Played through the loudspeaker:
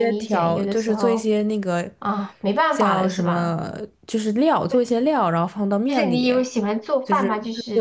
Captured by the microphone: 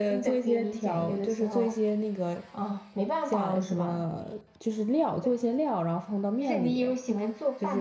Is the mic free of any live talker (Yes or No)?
Yes